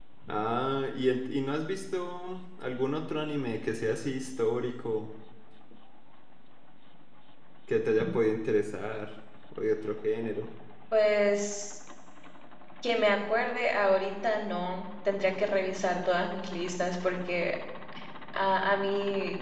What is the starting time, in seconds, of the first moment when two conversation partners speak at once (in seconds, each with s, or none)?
none